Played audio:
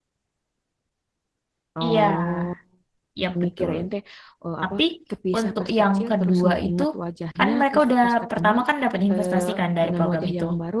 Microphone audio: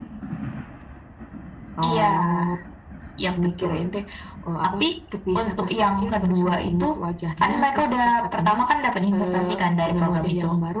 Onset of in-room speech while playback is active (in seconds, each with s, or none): none